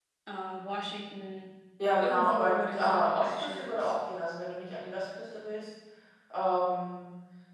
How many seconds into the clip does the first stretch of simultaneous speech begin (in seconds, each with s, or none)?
2.0 s